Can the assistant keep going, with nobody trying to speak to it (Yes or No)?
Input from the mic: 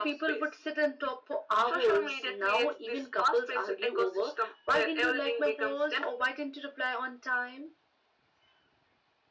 Yes